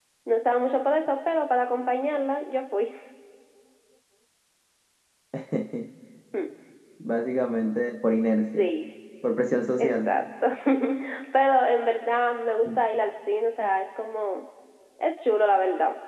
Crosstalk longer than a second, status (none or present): none